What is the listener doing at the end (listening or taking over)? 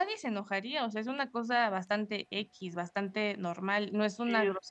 taking over